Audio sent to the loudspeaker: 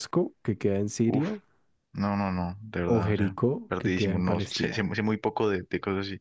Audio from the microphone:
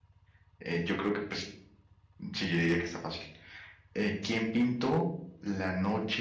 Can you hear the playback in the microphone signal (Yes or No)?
No